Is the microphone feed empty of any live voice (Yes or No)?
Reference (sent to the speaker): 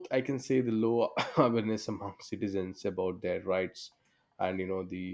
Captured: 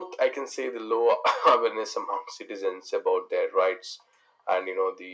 Yes